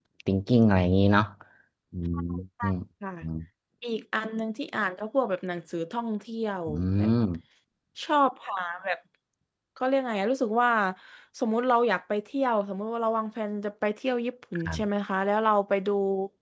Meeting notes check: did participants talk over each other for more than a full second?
No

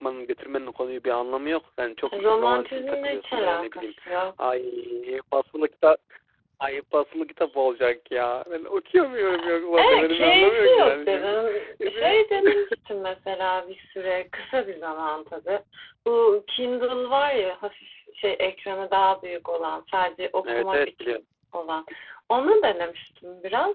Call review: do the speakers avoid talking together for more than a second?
No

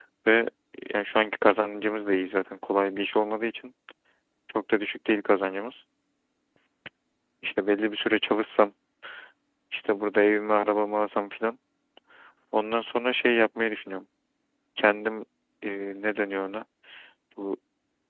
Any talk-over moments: No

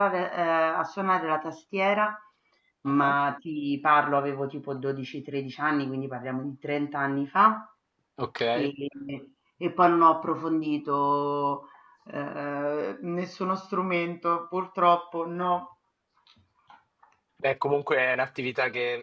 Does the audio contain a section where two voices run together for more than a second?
No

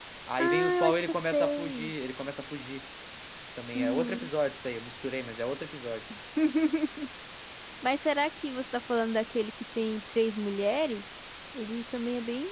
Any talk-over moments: Yes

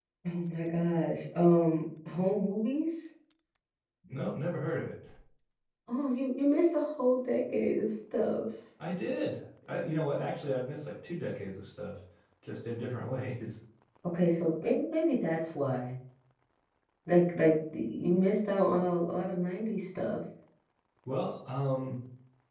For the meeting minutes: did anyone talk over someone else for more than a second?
No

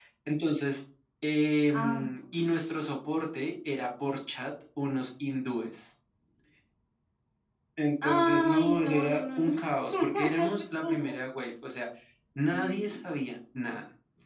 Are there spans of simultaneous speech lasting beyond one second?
Yes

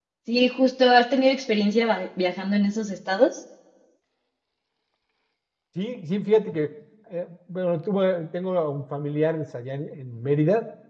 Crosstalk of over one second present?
No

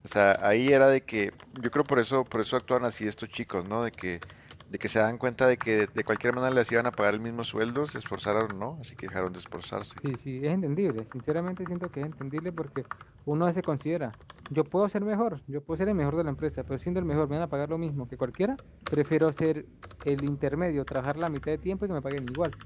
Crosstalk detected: No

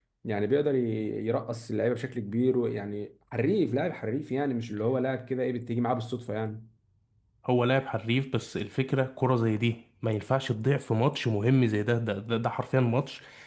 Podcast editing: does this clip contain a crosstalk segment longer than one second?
No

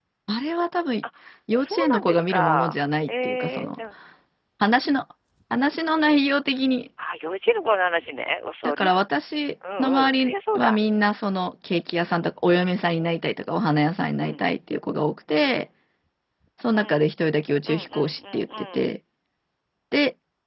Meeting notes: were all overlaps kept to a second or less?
No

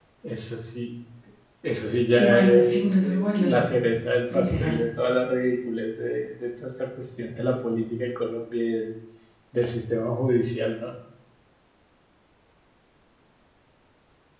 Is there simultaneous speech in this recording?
Yes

